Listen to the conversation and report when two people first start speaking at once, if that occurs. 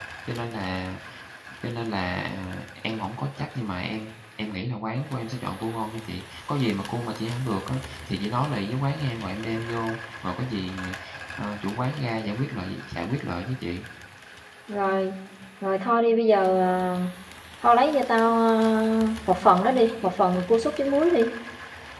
none

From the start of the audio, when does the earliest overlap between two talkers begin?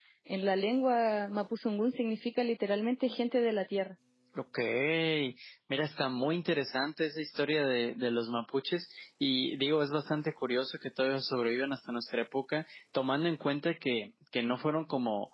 none

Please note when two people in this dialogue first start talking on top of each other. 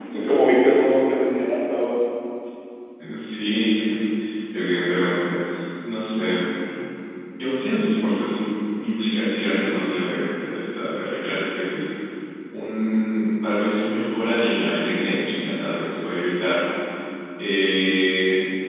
none

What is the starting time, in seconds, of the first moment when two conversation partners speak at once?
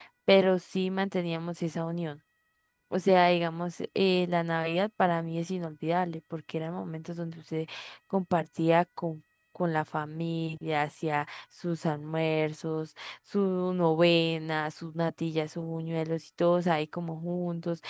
none

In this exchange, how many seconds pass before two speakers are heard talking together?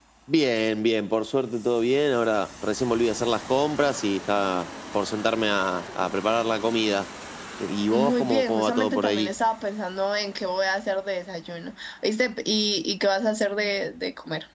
8 s

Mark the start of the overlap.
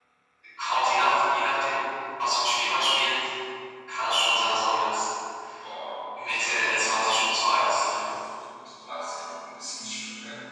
6 s

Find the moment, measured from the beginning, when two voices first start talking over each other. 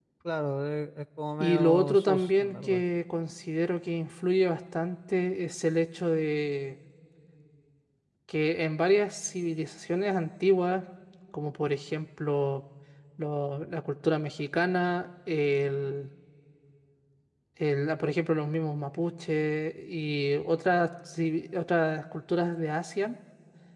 1 s

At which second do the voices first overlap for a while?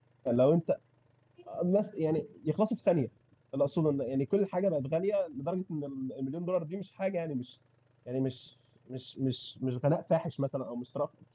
none

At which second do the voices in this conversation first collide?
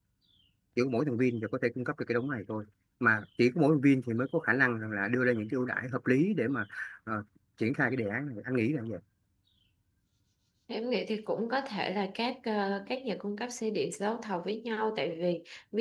none

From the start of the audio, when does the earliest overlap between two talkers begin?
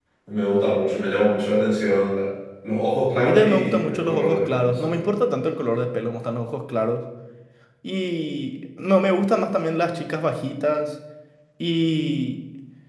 3 s

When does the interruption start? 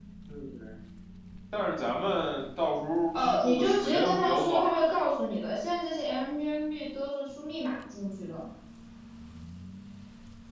3 s

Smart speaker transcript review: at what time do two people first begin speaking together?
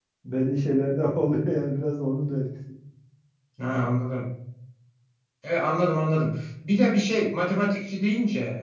none

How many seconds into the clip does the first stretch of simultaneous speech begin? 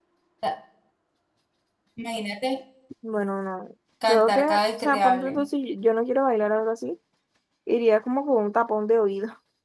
4 s

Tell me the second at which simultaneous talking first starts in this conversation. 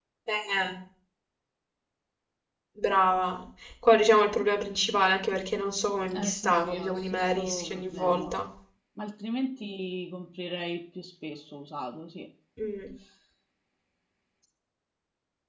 6 s

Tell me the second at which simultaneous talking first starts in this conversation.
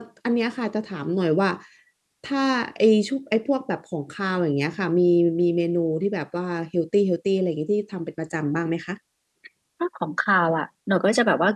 none

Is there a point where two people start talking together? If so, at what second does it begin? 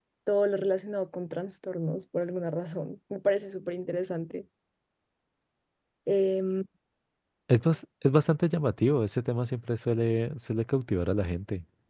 none

